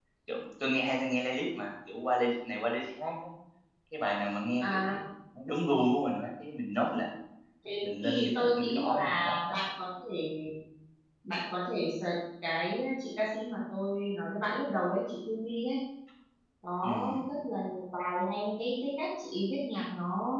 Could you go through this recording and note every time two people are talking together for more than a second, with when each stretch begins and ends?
8.0-9.6

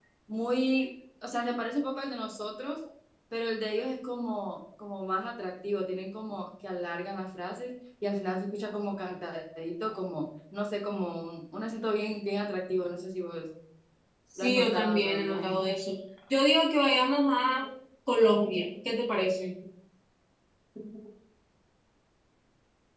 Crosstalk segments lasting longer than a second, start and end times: 14.4-15.6

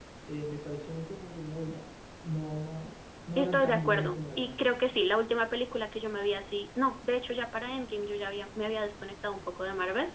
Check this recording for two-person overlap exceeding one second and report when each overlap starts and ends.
3.4-4.8

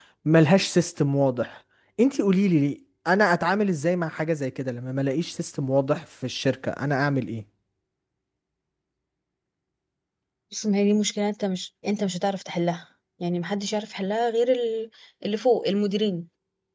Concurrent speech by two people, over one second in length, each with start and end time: none

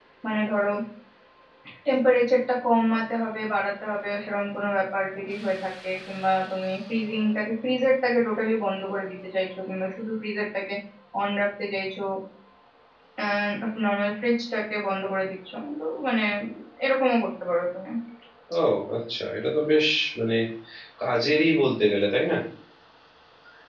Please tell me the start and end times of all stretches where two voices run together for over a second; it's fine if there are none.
none

